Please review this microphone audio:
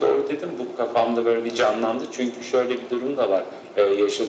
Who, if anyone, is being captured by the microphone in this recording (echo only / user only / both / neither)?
echo only